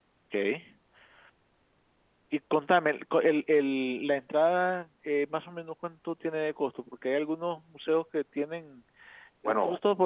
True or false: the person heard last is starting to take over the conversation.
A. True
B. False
B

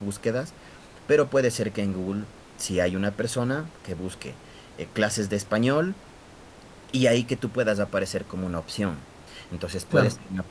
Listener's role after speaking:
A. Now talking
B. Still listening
B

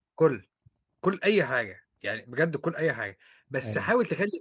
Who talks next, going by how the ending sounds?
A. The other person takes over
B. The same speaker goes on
B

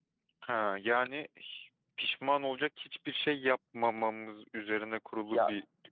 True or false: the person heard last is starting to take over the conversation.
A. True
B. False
A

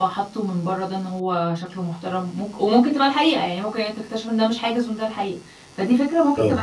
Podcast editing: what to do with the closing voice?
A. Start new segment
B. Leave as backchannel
A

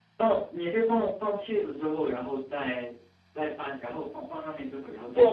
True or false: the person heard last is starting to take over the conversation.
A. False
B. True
B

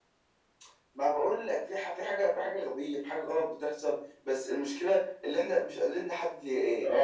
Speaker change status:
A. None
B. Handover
B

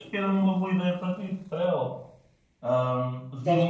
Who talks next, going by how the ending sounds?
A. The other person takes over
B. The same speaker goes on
B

